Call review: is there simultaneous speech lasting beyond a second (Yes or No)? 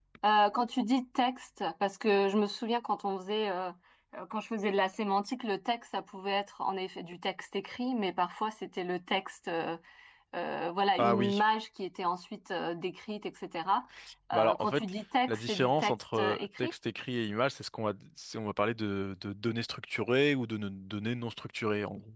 Yes